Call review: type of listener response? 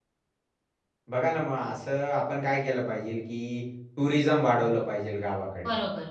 listening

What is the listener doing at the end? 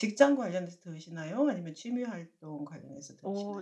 taking over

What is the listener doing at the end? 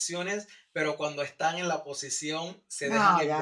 listening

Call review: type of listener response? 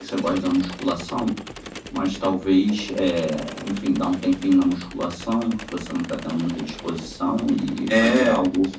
taking over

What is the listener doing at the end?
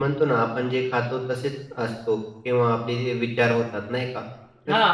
listening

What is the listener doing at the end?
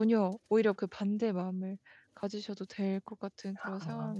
taking over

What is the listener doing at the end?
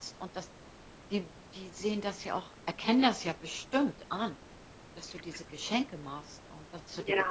taking over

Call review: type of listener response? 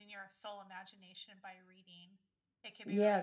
taking over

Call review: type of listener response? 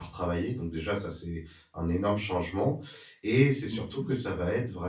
listening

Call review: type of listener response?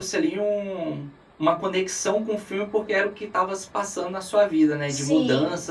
taking over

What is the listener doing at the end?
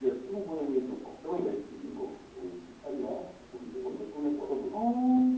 taking over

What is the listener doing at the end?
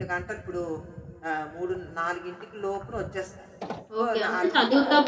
taking over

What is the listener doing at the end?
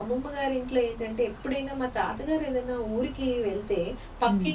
listening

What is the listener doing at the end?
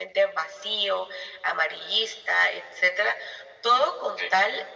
listening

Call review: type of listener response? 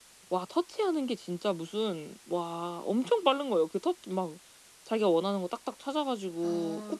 taking over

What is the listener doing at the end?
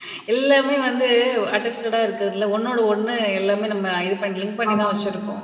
listening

